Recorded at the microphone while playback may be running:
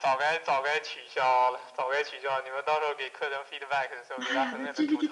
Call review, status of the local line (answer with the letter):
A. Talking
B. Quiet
A